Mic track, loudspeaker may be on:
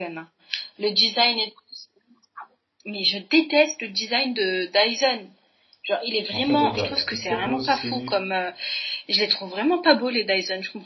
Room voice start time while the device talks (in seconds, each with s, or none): 6.3 s